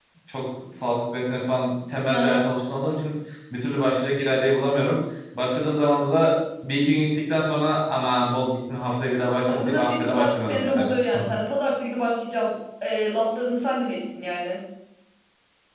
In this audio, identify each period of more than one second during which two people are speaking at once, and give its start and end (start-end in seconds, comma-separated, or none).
9.5-10.9